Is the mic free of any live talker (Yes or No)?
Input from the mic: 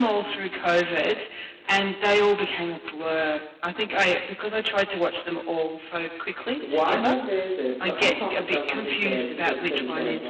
No